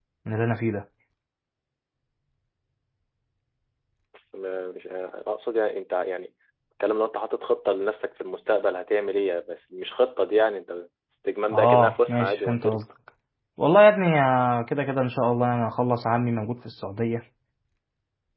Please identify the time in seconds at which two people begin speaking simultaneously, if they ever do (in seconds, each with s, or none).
11.5 s